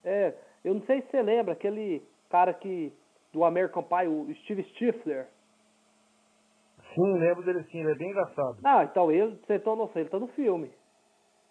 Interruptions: none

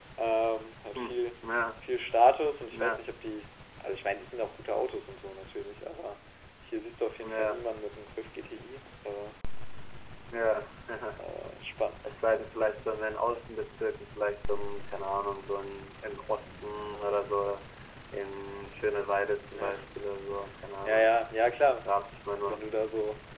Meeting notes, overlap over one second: none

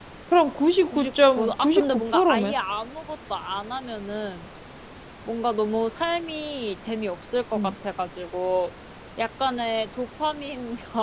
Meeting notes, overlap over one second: present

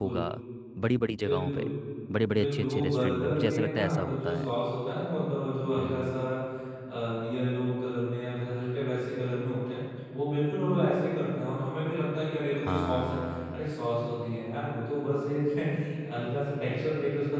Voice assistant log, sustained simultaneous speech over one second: present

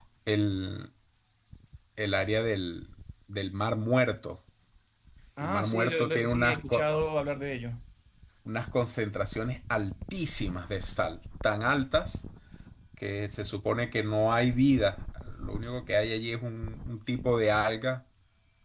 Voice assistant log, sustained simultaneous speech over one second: present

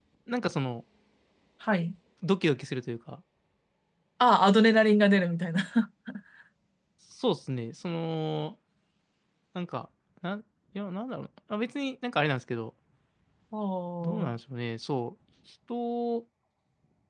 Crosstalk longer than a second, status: none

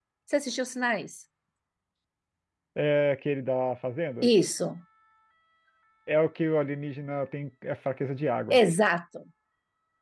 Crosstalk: none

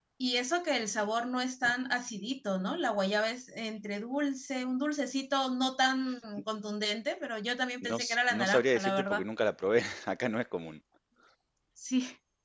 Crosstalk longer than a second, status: present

